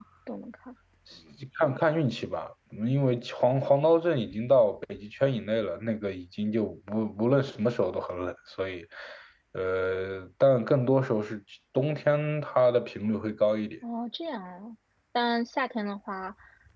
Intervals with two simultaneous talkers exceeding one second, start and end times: none

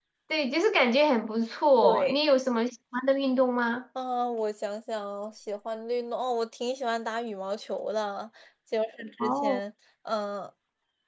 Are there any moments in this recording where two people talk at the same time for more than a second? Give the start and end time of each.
none

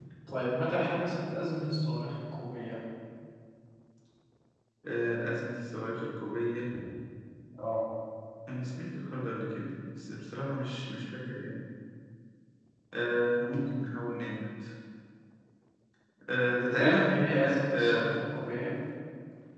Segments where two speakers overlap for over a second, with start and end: 16.6-18.1

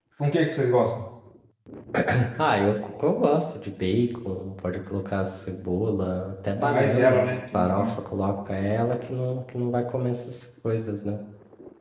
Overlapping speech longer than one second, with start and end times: 6.6-7.9

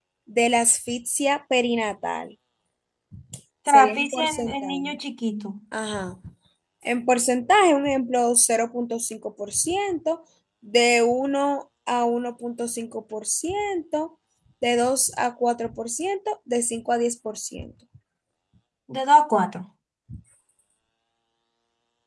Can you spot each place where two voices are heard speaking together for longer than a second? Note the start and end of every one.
3.7-4.9

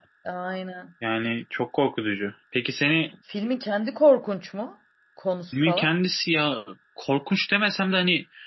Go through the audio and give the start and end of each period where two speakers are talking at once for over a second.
none

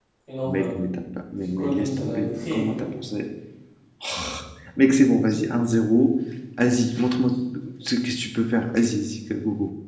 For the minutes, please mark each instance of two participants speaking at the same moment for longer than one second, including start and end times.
1.6-3.0

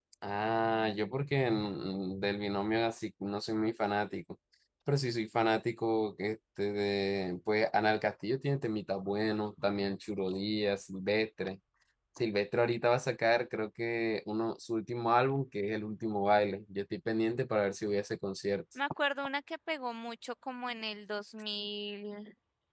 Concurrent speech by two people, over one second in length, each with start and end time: none

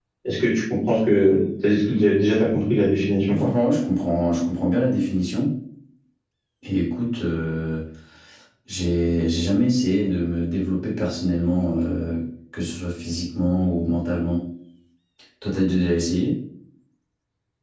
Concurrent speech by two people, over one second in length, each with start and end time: none

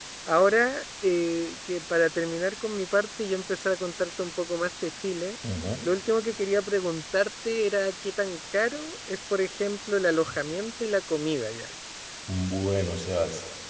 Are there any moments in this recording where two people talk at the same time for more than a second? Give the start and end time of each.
none

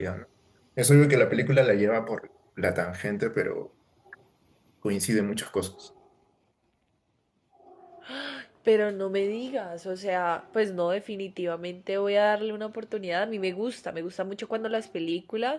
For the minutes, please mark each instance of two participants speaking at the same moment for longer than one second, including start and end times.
none

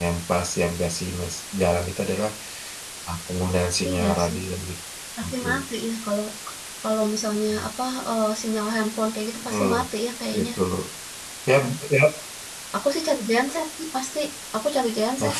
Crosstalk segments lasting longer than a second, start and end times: none

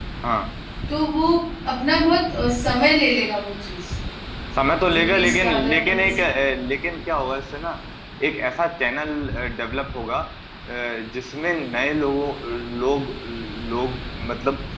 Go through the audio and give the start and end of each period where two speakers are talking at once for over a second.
4.8-6.2

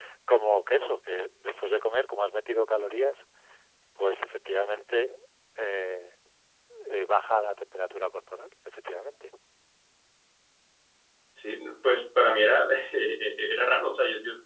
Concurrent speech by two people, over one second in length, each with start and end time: none

